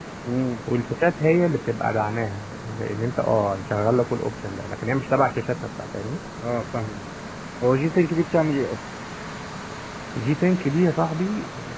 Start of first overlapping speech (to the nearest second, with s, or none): none